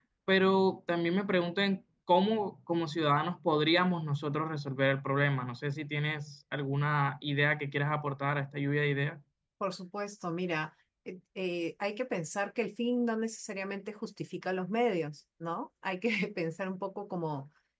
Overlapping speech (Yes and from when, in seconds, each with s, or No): No